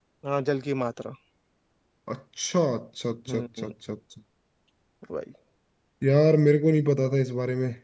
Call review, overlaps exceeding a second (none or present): none